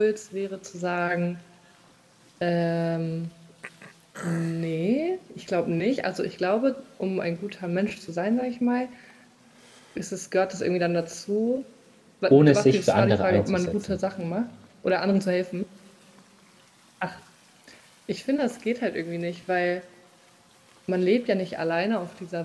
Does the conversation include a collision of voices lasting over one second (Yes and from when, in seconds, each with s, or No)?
Yes, from 12.3 s